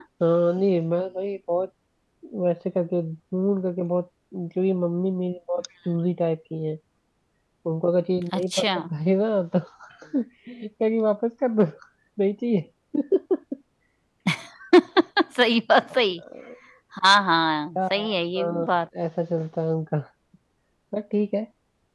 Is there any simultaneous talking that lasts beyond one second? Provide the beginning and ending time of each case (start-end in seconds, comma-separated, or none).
none